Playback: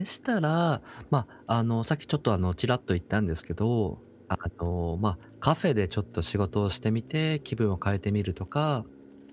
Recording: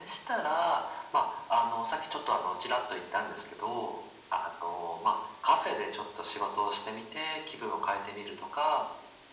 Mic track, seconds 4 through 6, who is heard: echo only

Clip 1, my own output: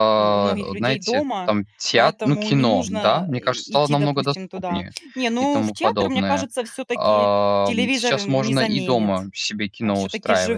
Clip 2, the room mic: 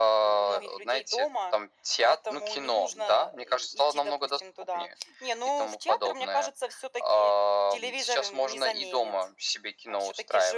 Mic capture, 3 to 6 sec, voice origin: echo only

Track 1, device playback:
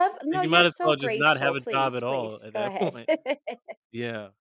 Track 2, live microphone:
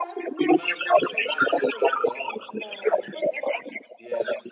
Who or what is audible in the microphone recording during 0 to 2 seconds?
echo only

